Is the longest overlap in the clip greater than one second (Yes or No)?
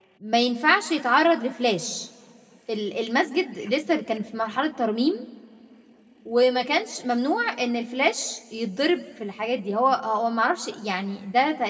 No